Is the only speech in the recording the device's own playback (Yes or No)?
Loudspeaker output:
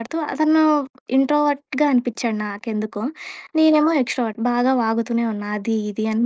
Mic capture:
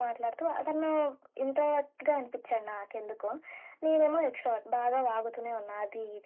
Yes